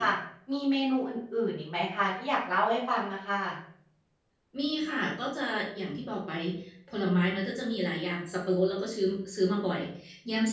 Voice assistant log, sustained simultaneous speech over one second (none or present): none